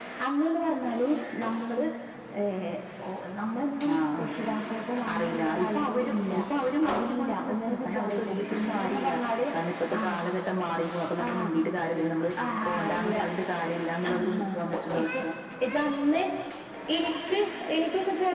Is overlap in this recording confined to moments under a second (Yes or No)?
No